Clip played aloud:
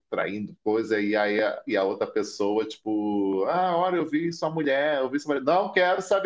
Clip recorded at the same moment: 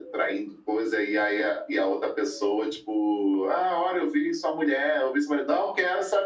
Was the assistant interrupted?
No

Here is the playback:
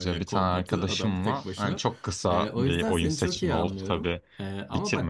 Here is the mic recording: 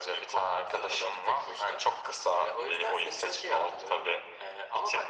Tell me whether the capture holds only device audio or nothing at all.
Yes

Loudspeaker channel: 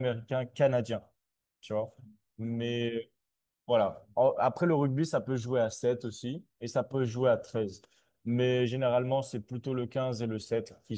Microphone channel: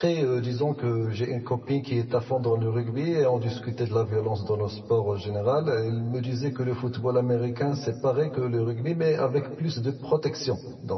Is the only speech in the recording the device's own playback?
No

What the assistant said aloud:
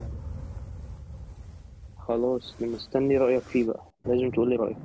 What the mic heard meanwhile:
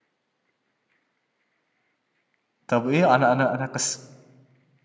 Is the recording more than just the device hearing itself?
Yes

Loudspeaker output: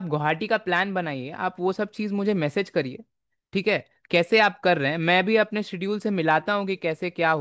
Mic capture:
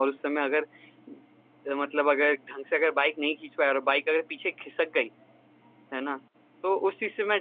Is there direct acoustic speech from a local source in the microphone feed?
Yes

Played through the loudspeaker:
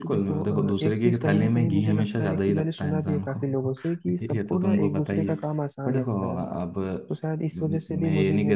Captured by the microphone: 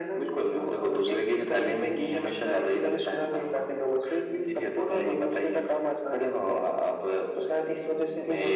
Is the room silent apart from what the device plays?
Yes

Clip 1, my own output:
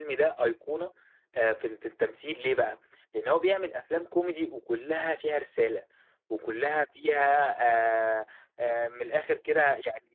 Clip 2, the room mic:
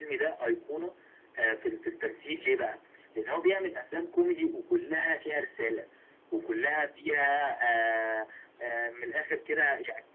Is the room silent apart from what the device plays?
Yes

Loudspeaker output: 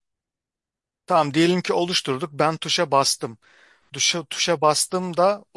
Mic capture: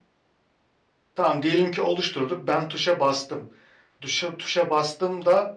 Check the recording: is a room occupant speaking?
No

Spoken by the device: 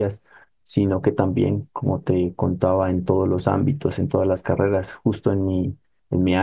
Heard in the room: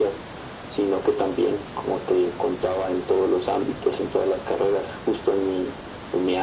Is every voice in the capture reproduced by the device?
Yes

